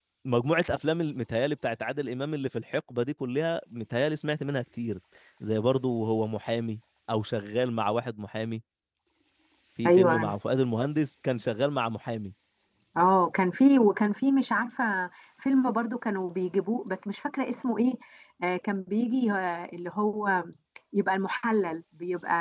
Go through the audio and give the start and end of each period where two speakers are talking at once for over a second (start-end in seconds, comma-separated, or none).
none